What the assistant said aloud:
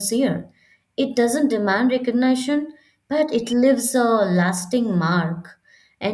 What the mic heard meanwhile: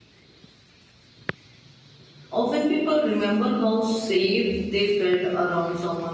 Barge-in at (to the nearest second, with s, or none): 2 s